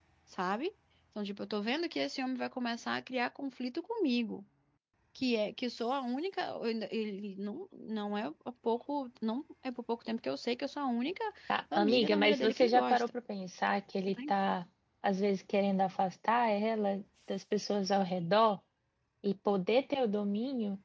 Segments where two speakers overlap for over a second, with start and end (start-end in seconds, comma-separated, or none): 11.8-13.1